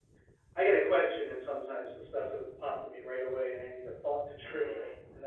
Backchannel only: No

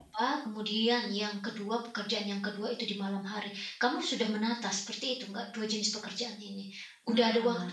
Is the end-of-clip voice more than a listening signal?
Yes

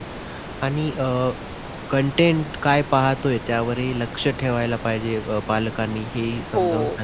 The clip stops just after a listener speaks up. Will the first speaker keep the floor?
Yes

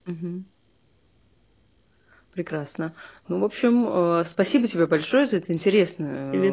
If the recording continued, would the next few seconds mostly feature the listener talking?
No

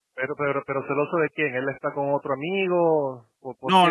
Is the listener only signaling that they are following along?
No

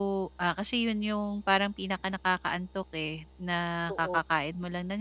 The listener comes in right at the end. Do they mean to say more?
No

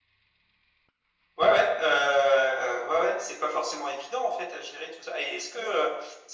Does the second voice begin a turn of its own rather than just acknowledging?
No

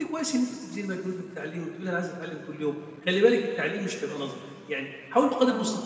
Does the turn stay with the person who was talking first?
Yes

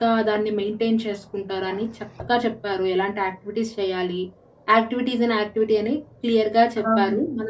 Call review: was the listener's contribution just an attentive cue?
Yes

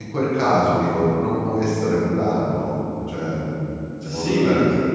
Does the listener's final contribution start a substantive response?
Yes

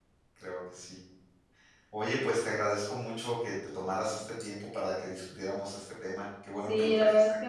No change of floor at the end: No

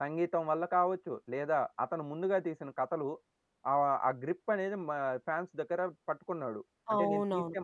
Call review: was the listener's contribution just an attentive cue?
No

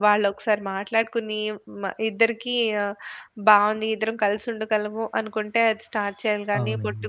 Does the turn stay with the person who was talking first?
Yes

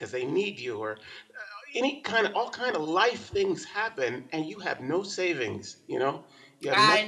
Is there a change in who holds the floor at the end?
Yes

